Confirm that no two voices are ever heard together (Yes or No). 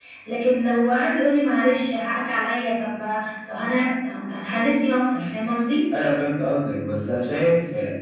Yes